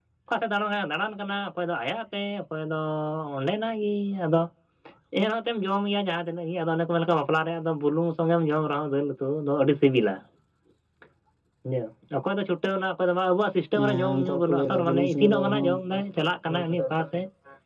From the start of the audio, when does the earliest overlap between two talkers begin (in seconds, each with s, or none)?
13.8 s